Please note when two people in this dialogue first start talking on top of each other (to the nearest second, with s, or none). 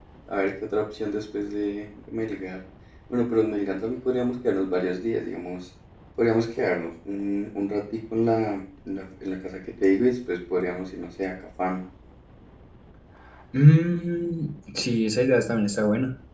none